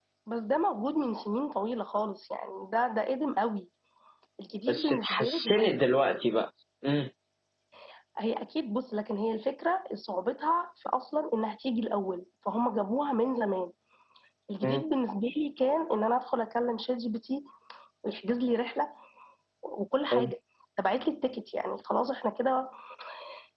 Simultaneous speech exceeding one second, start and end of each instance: 4.7-6.0

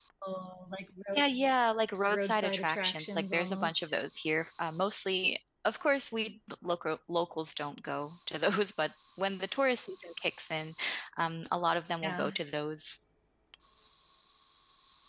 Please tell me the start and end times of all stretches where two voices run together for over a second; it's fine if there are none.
2.1-3.9

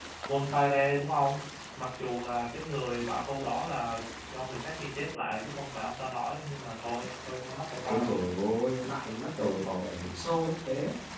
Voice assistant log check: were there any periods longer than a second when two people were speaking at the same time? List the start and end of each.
none

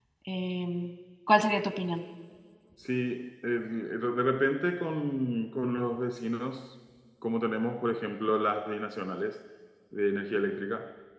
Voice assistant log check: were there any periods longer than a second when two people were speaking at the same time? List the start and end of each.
none

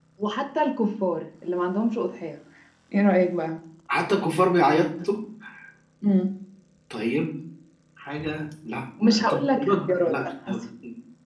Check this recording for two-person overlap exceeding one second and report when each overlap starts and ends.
9.0-10.6

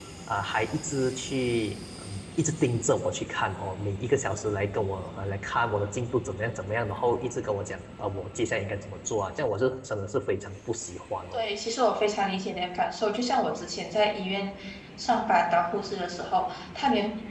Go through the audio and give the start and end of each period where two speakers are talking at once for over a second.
none

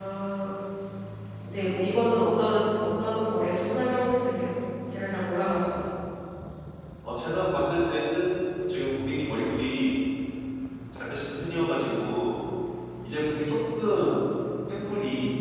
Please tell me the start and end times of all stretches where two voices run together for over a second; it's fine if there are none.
none

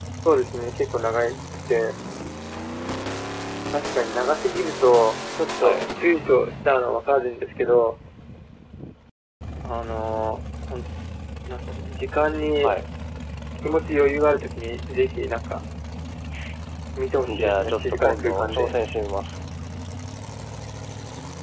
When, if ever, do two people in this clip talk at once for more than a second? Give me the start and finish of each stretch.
17.4-18.7

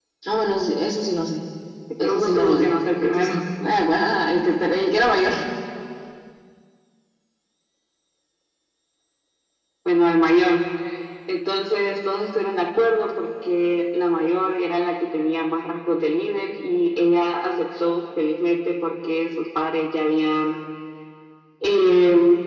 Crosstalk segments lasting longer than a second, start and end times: 2.0-3.3

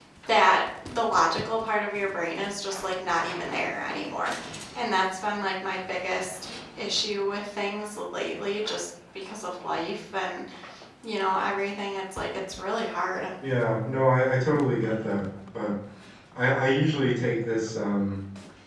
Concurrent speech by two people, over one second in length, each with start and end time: none

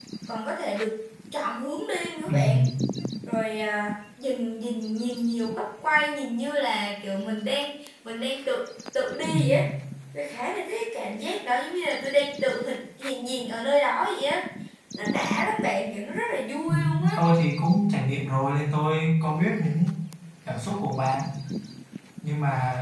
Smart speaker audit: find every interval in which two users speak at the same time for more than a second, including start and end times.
none

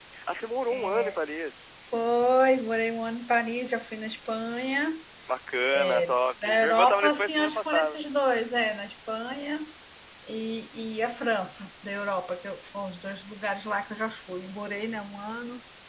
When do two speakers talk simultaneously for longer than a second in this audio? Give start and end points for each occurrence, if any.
6.4-8.0

